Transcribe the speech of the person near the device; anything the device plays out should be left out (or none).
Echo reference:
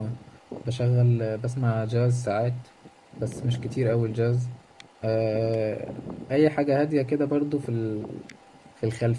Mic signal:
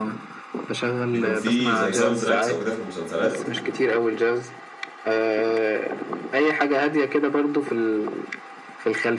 بيكون في زي ساوند تراكس او كده في المسلسلات